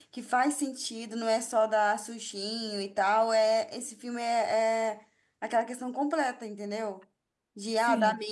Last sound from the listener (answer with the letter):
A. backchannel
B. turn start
A